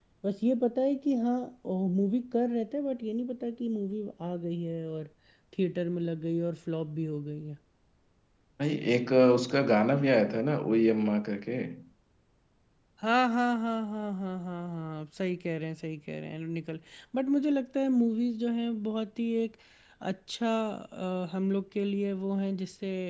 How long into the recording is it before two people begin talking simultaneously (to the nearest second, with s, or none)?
none